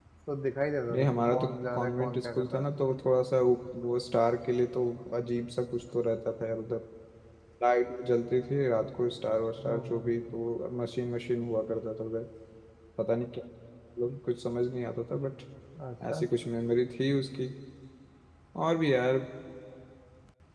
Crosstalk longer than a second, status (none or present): present